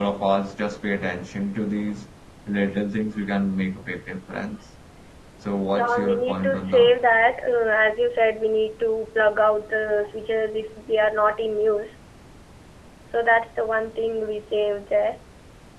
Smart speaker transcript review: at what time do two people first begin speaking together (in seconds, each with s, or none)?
5.8 s